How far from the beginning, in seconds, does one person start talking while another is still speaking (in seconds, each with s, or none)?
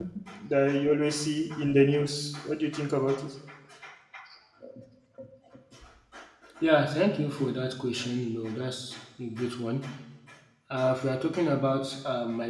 none